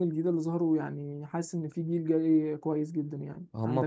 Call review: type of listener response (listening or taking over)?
taking over